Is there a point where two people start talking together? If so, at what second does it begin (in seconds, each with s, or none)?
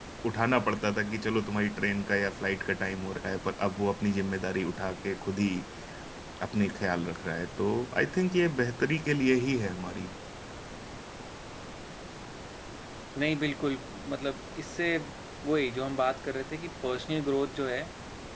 none